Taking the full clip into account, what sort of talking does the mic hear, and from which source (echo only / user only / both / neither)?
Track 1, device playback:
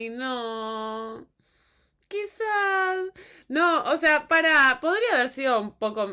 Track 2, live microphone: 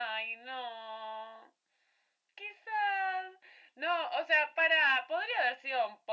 echo only